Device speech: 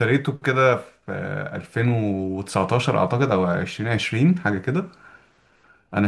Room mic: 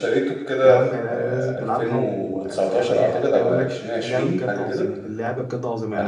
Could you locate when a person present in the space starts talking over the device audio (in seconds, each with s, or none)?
0.6 s